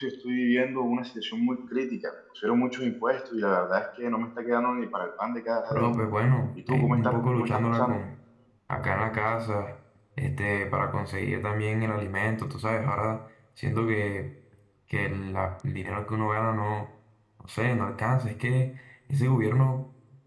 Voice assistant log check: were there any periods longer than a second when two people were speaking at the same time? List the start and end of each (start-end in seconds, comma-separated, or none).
6.7-8.0